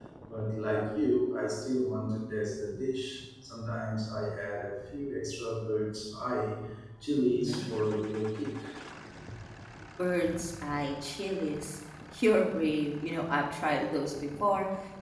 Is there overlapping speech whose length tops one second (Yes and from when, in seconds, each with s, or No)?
No